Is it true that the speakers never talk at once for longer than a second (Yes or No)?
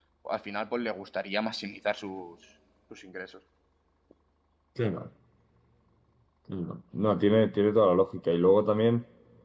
Yes